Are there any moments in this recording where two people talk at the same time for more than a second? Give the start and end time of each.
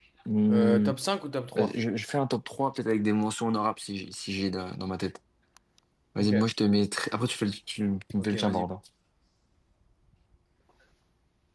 none

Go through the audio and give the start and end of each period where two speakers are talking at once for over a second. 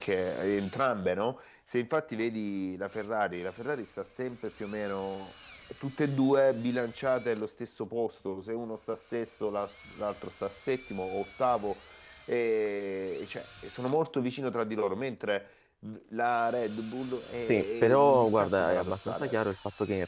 17.5-19.4

